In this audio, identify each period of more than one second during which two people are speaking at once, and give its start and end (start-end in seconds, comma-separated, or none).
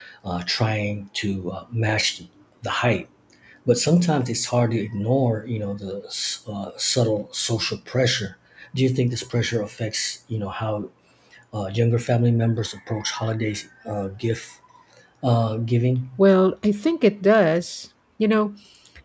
none